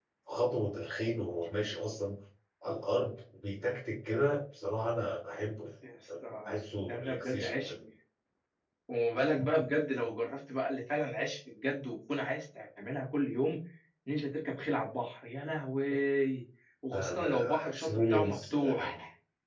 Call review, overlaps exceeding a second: present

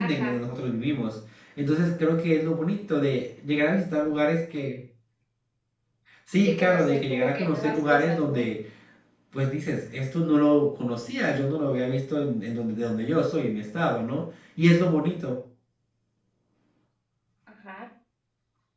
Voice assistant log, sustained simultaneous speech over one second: present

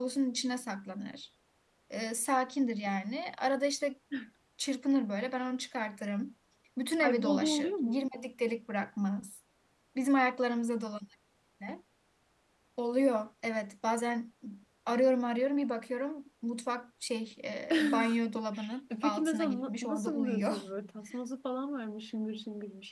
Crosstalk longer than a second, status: present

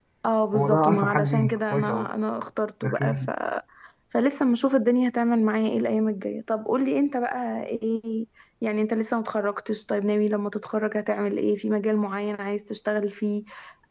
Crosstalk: present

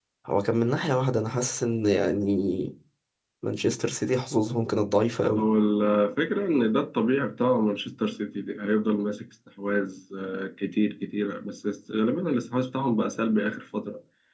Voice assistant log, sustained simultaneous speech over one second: none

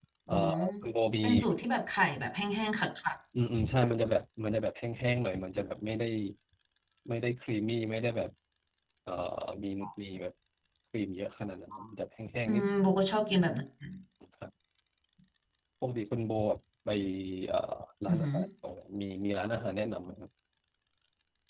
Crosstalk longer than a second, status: none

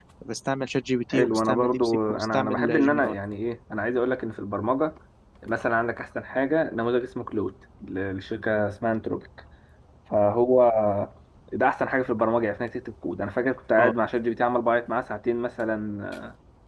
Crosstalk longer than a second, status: present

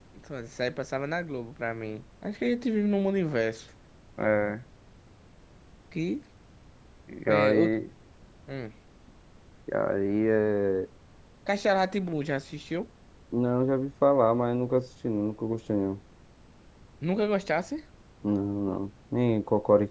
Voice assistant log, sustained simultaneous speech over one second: none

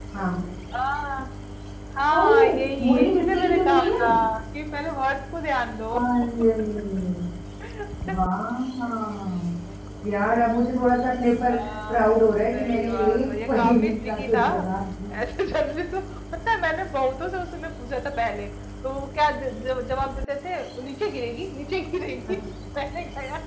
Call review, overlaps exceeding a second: present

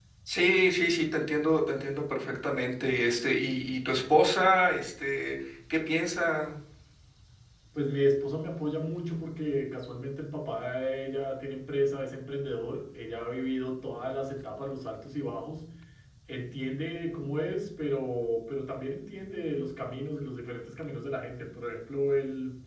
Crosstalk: none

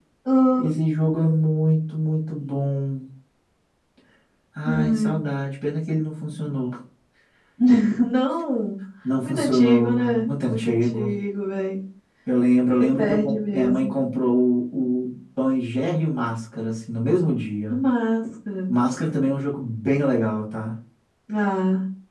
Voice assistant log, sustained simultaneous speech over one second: present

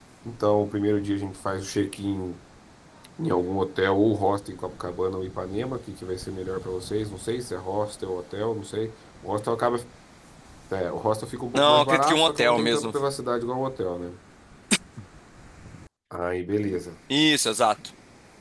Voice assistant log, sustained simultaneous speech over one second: present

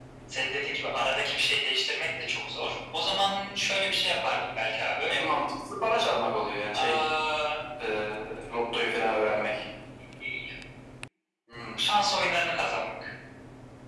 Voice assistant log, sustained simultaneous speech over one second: none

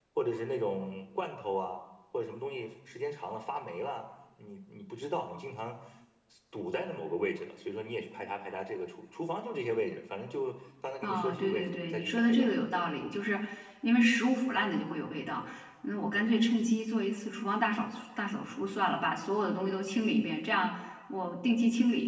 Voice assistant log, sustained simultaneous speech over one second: present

